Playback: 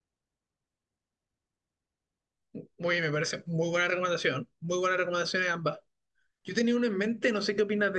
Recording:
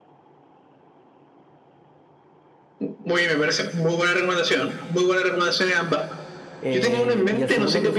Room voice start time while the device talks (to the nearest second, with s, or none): 7 s